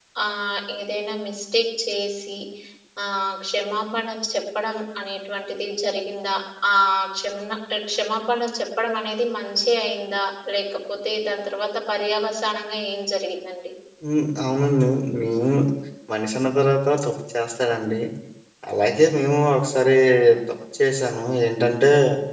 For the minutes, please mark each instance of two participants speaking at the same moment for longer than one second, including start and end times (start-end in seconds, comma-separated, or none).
none